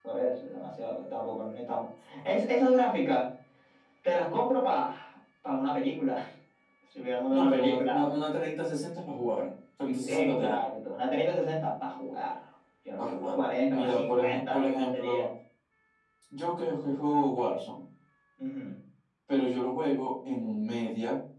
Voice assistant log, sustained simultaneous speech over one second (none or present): present